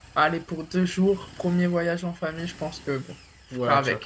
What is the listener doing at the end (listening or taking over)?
taking over